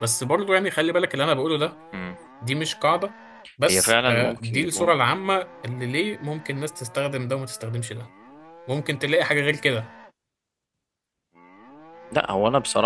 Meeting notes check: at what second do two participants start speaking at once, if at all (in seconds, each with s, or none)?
3.6 s